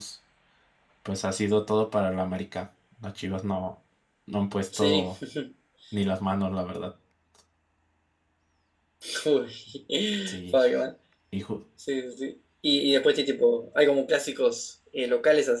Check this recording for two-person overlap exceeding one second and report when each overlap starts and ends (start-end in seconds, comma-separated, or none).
none